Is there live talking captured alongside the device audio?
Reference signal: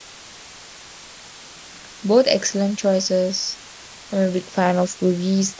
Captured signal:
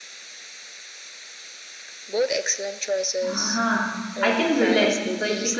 Yes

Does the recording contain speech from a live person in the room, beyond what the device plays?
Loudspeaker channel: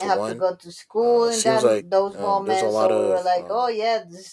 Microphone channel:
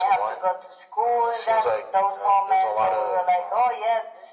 No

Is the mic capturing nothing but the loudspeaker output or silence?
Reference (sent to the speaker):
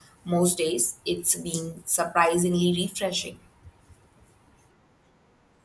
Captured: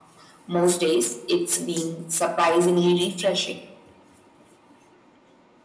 Yes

